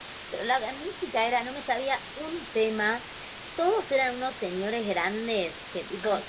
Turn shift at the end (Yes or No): No